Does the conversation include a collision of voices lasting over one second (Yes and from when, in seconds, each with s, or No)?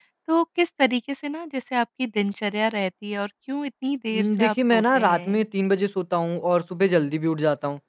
Yes, from 4.1 s